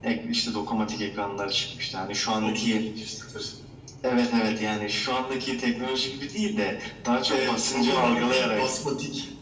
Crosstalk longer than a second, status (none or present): present